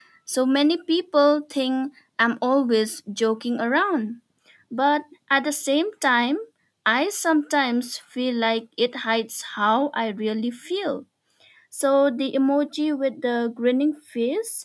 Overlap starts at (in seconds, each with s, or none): none